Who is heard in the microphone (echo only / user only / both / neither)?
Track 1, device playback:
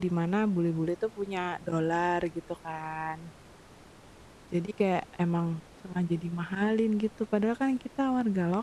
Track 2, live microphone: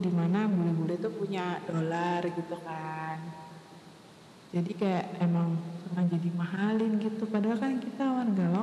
echo only